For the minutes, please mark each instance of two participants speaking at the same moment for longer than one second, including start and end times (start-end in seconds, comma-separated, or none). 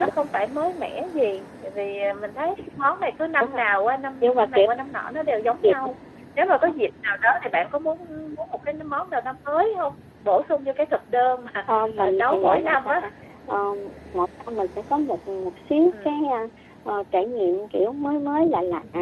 11.7-13.0